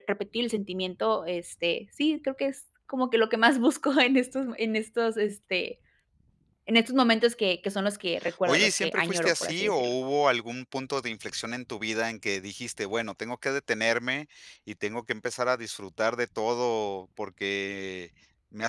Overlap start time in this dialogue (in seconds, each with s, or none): 8.2 s